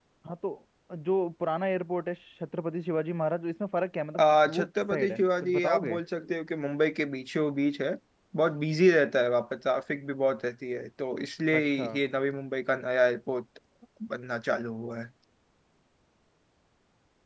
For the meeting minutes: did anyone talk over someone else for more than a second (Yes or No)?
Yes